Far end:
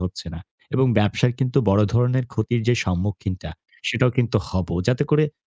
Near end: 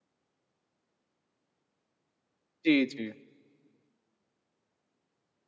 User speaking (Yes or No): Yes